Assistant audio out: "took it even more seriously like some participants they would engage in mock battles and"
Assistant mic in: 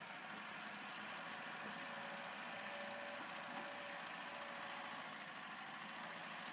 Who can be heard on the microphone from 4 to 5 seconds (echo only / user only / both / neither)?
neither